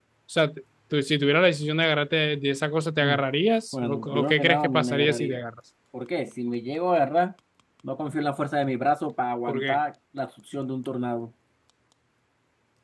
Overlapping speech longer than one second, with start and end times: 3.7-5.4

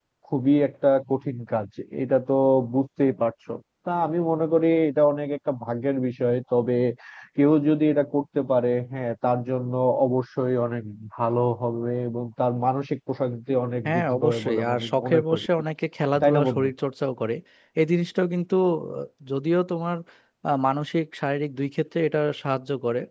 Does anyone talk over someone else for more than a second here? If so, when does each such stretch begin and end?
13.8-15.5

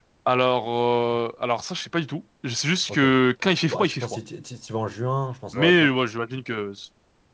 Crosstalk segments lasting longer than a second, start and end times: none

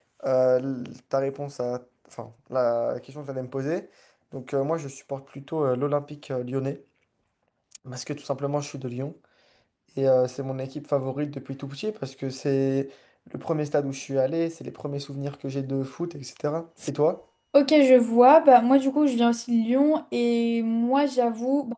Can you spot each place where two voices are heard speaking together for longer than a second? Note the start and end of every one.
none

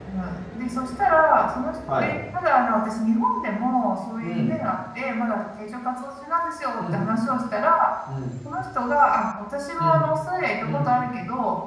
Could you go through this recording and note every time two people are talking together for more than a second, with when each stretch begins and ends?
none

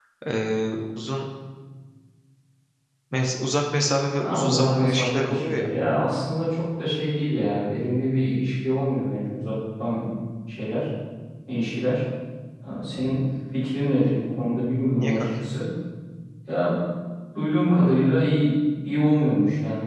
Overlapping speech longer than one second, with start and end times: 4.2-5.6

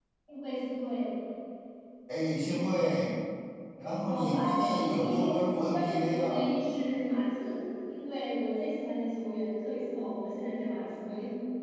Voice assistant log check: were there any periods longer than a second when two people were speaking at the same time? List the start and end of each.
4.0-6.5

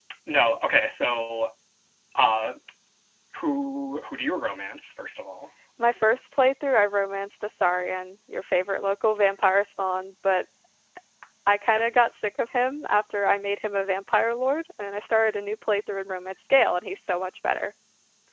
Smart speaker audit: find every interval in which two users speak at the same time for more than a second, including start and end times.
none

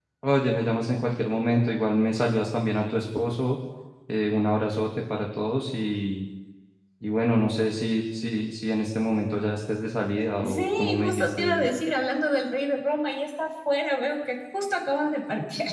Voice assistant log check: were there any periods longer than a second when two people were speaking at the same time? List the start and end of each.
10.4-11.7

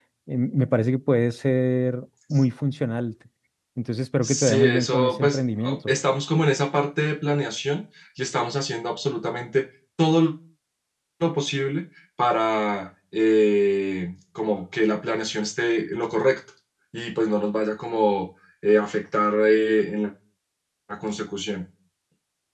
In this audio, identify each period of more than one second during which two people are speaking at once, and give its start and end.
4.2-5.9

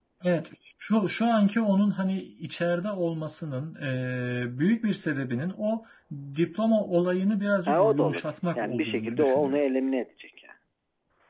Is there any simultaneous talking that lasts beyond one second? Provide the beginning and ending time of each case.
7.6-9.6

